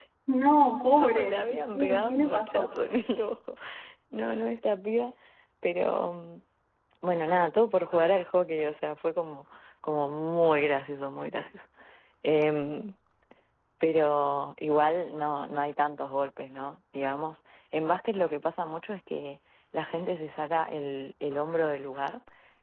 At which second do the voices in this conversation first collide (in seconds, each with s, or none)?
1.0 s